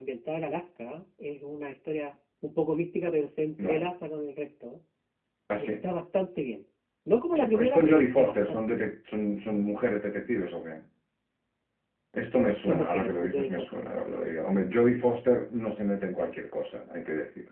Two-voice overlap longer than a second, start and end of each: 7.6-8.9, 12.6-14.0

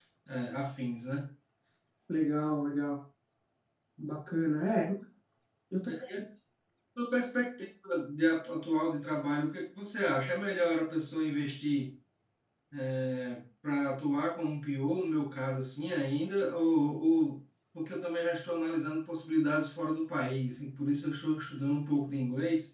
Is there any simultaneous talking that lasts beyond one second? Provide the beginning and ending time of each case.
none

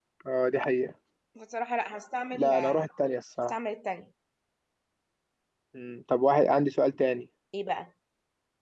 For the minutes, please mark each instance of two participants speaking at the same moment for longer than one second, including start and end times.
none

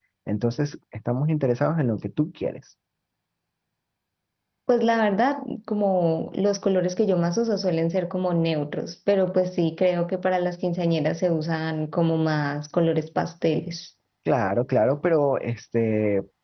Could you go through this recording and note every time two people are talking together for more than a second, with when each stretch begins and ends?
none

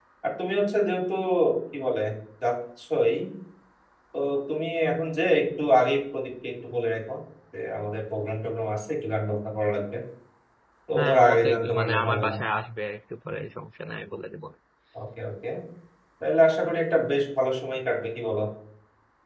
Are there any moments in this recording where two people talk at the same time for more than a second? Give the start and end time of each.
10.9-12.3

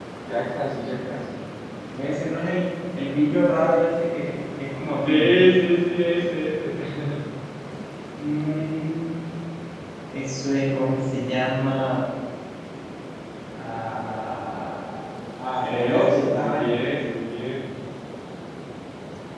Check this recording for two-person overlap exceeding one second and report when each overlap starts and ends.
15.6-16.8

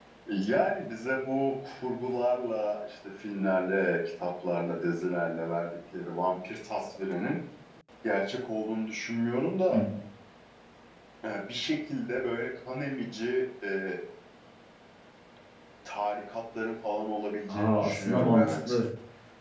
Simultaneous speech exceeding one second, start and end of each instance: 17.5-18.8

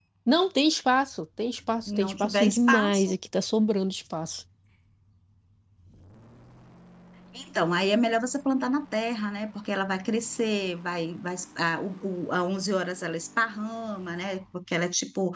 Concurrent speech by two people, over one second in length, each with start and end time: 1.9-3.1

